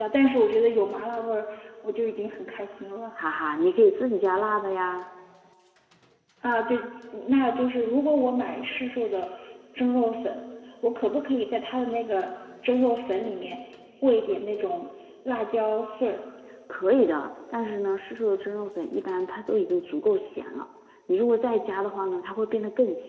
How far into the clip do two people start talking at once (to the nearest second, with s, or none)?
none